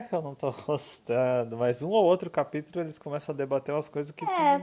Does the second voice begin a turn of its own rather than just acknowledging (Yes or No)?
Yes